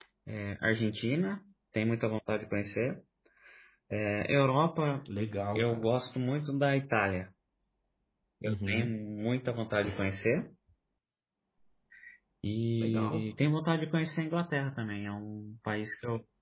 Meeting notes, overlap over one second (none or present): none